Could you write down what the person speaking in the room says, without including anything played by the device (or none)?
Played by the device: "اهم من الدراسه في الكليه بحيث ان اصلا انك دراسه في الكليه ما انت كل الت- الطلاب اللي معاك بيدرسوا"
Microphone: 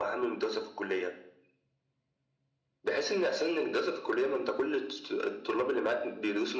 none